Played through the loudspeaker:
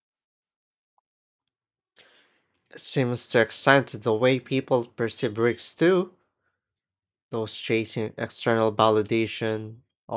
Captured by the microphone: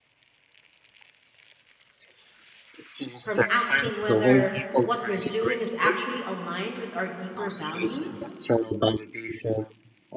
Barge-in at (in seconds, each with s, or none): 3.2 s